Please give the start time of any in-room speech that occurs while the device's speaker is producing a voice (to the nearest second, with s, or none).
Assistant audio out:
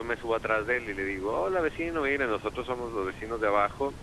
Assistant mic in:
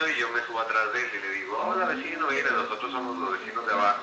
2 s